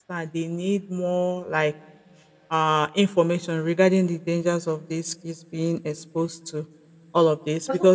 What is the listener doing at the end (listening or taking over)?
listening